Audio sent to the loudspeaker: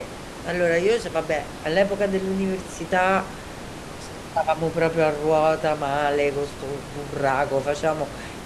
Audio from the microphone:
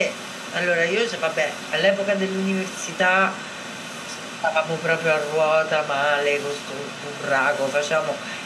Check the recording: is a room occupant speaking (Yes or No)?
No